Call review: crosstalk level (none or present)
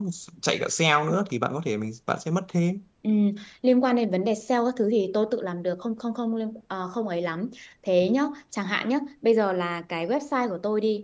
none